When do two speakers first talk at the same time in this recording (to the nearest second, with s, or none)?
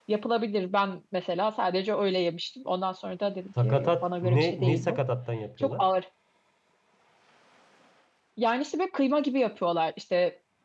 4 s